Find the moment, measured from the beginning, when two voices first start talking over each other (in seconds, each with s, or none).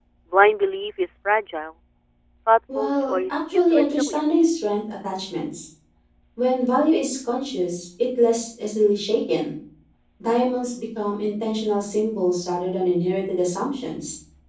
2.8 s